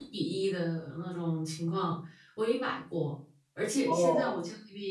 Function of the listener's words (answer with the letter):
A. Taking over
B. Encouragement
B